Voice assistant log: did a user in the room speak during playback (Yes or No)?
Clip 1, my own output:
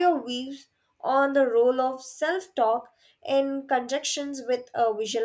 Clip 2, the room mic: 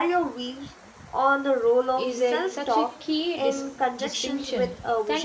Yes